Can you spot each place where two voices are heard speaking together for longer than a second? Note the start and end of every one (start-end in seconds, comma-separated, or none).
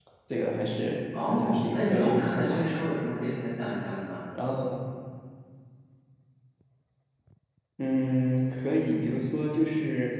1.3-2.9